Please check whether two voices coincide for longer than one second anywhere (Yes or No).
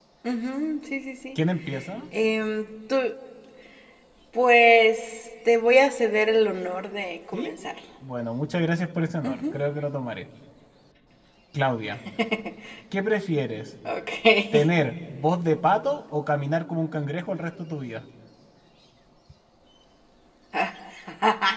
No